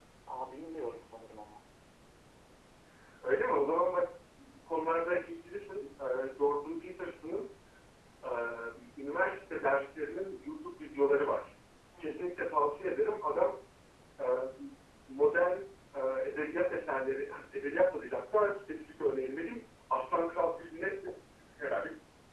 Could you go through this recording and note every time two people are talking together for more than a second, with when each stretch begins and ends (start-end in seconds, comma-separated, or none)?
none